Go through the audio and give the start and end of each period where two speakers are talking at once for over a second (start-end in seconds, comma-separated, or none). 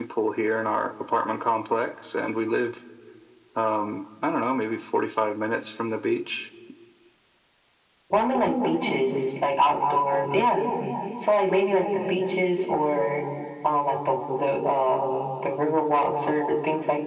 none